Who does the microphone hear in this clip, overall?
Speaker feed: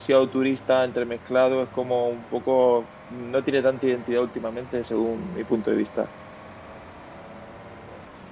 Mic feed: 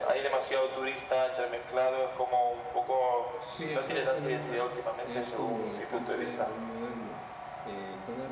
both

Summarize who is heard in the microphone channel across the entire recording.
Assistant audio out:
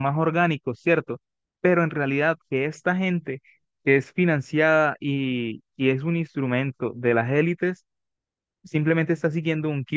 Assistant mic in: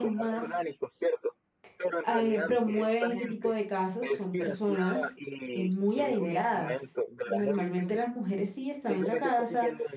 both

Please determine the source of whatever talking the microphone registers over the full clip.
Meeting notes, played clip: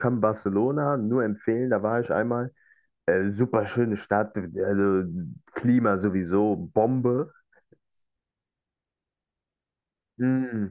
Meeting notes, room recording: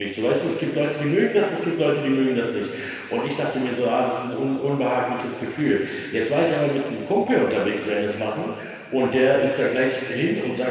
user only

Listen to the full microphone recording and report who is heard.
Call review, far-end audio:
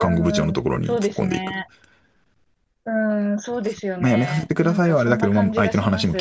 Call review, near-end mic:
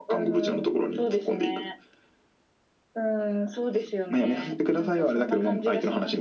echo only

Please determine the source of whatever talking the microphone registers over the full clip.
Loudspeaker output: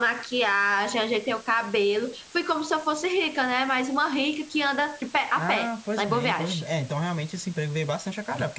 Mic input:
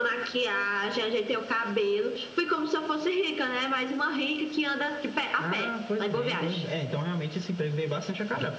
echo only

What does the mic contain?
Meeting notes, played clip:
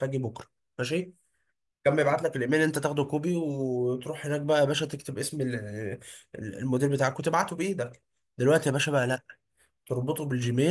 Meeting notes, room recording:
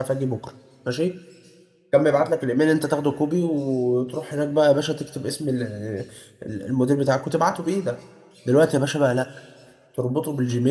echo only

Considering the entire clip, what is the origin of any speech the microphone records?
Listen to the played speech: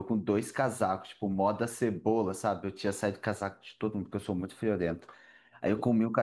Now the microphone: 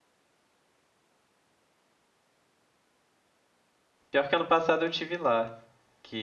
user only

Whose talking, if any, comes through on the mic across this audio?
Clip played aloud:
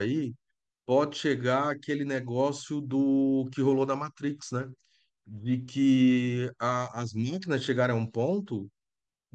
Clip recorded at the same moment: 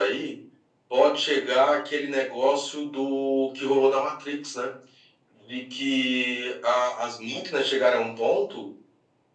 echo only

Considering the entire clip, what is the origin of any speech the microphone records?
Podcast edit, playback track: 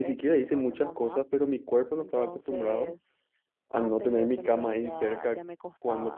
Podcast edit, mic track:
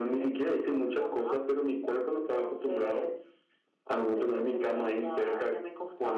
echo only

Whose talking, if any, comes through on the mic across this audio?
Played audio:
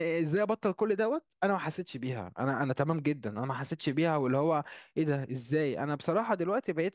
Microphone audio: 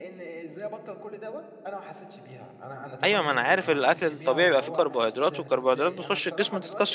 both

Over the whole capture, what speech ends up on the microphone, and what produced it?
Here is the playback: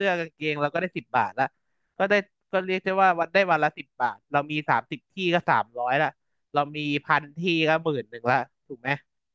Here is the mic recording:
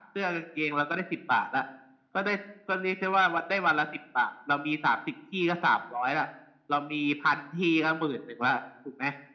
echo only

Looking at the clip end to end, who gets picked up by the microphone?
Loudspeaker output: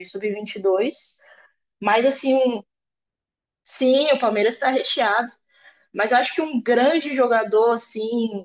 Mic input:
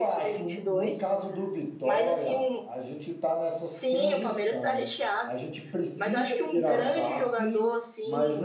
both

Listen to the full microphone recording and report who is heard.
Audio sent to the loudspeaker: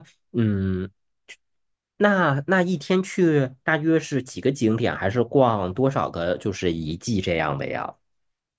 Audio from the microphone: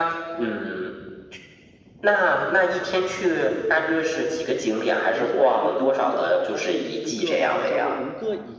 both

